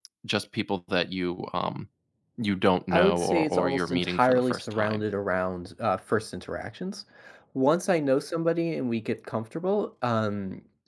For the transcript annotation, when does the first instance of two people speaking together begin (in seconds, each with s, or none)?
2.9 s